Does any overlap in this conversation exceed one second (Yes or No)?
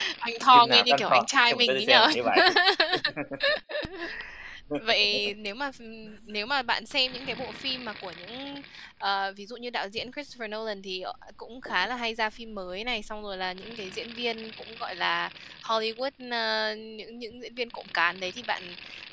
Yes